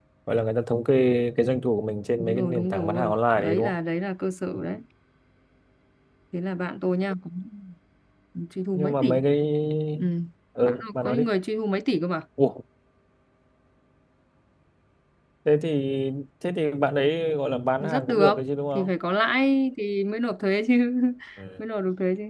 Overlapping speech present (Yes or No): Yes